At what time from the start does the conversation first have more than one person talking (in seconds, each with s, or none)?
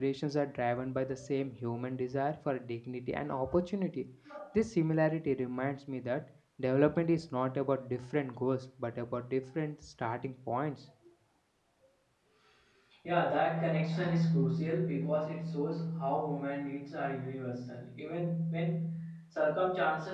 none